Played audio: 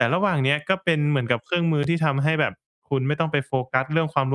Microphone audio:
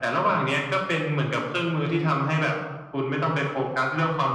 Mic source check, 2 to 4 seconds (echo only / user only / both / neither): echo only